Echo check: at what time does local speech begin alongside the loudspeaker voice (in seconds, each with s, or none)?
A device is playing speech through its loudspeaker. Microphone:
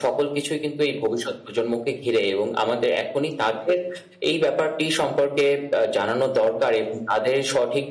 none